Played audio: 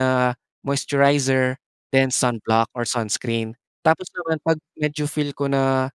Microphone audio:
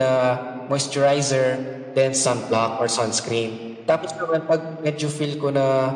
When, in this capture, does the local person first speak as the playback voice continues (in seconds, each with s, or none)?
none